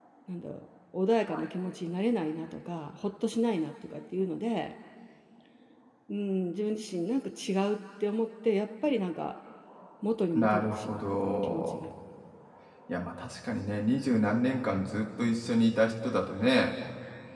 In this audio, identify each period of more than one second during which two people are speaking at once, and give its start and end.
10.3-11.8

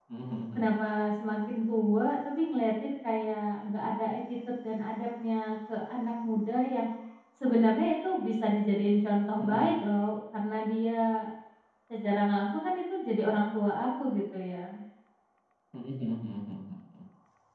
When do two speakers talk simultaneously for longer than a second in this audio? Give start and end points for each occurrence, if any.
none

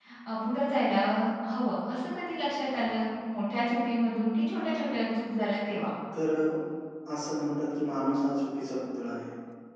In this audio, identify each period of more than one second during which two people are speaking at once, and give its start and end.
none

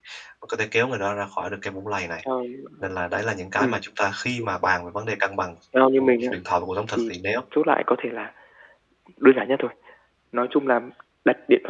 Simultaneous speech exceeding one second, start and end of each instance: none

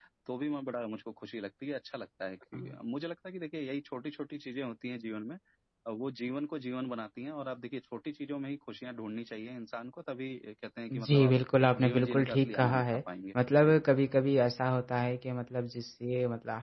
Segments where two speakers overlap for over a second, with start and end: 11.8-13.0

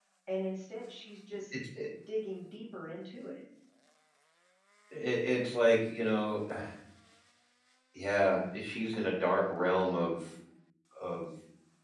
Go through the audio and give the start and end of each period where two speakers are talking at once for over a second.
none

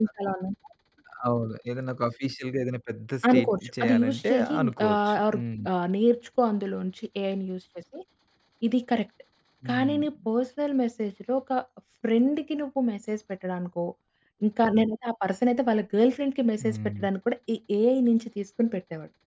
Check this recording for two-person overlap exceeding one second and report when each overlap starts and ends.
3.3-5.4

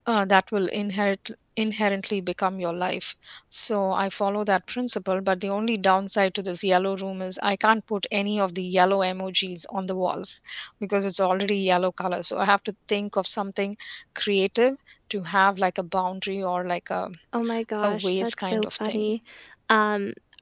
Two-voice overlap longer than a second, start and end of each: 17.8-19.1

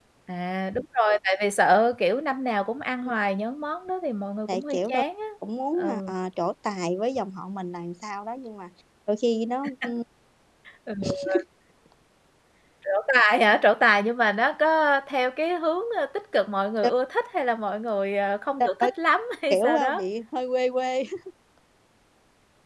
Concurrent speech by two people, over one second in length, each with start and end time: none

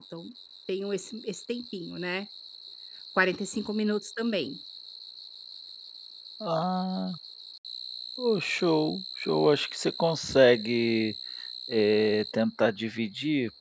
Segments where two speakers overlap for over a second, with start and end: none

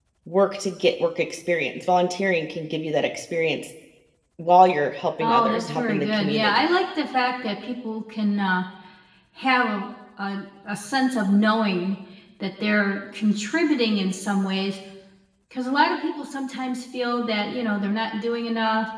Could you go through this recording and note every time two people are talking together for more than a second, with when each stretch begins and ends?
5.2-6.7

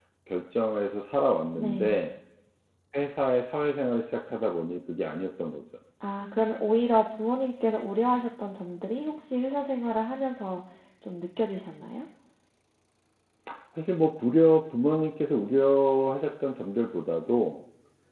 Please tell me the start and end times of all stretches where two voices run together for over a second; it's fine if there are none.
none

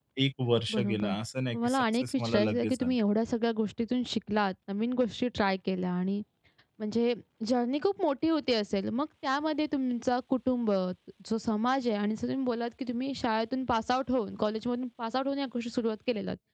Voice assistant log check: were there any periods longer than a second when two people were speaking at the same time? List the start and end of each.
1.6-2.9

